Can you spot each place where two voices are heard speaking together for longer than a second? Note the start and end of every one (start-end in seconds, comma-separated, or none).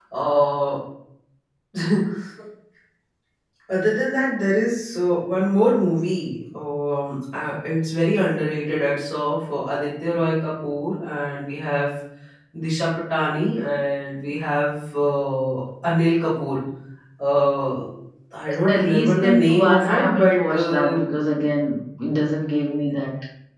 18.8-21.0